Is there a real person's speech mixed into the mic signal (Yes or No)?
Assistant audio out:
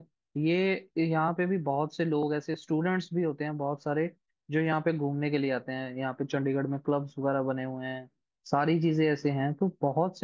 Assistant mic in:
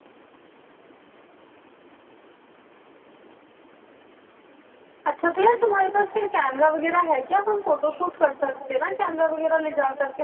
Yes